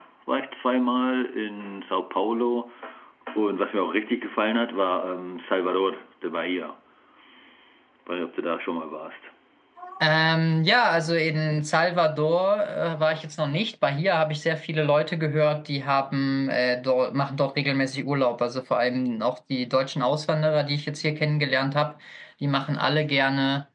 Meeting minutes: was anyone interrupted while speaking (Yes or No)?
No